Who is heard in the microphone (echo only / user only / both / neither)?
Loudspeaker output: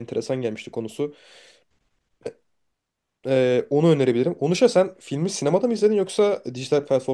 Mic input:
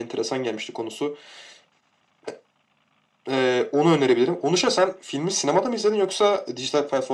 echo only